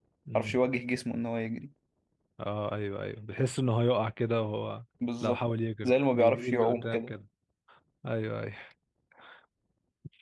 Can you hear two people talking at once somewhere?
Yes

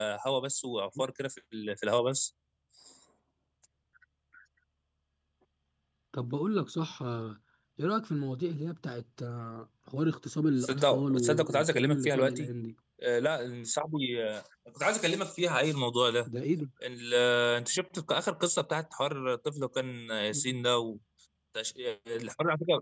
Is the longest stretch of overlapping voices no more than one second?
No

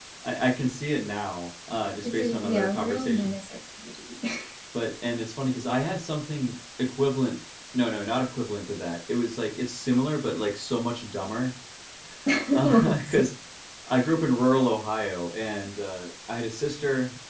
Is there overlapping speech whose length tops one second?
Yes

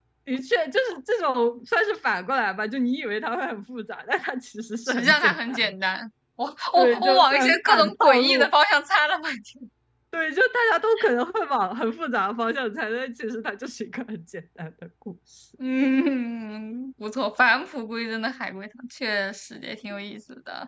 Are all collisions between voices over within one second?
No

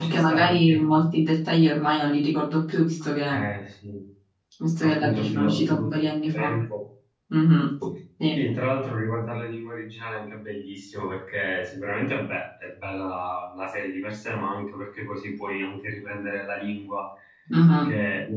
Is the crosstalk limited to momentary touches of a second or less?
No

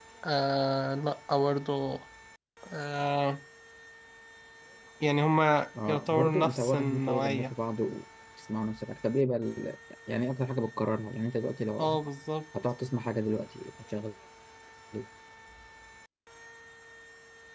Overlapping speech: Yes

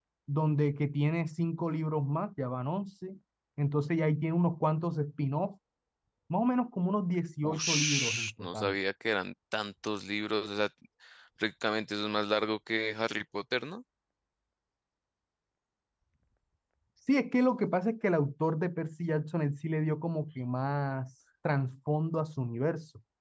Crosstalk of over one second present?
Yes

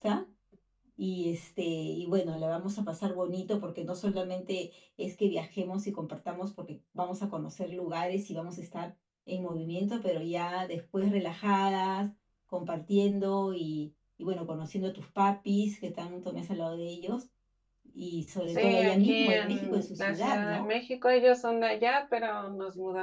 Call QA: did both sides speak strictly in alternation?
No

